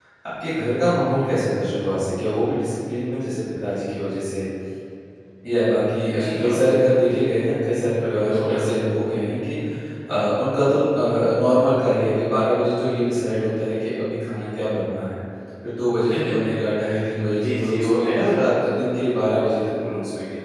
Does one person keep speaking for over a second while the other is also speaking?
Yes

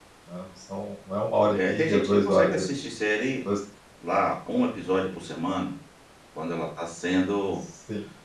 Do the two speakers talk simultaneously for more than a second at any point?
Yes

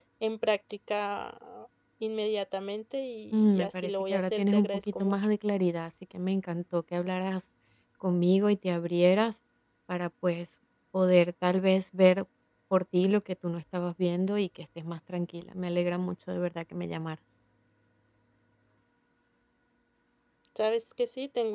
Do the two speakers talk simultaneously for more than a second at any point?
Yes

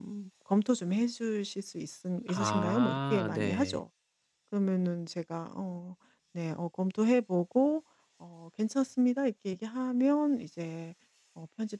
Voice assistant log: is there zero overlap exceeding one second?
No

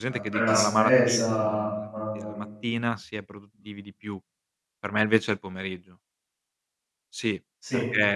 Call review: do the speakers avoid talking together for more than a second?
No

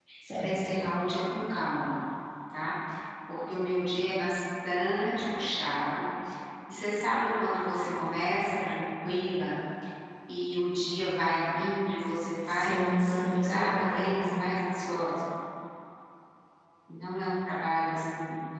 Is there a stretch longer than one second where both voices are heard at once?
Yes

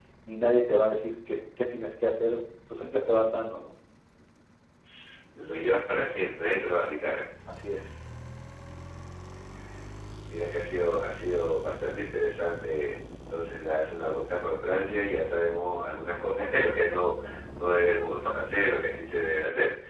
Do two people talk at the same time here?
No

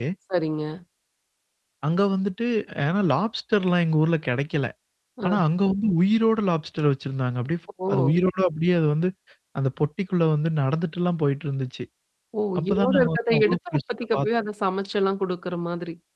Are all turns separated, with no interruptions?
No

